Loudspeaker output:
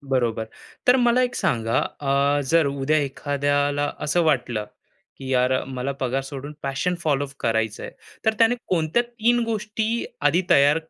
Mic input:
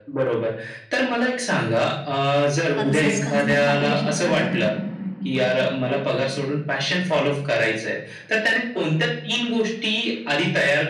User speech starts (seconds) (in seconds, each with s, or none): 2.8 s